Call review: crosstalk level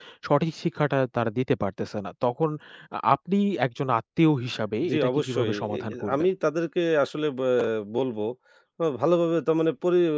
present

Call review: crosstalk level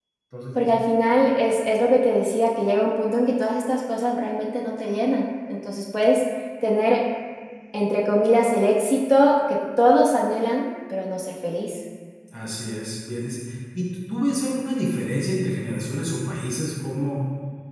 none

